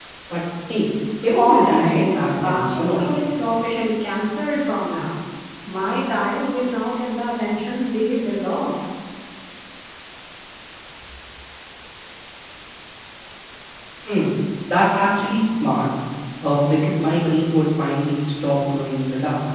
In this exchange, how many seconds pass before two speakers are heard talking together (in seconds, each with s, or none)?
1.2 s